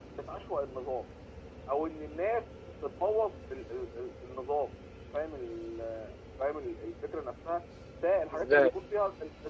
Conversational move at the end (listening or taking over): listening